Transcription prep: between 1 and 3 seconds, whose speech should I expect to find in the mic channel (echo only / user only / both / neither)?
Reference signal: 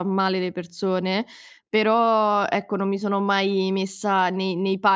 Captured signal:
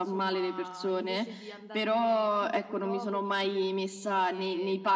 both